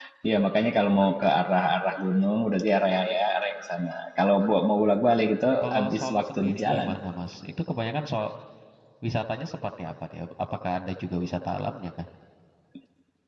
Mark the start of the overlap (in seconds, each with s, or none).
5.6 s